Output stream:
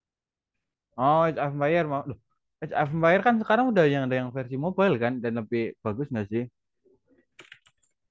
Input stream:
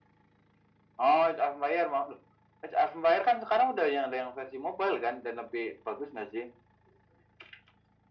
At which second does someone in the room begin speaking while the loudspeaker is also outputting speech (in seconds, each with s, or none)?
none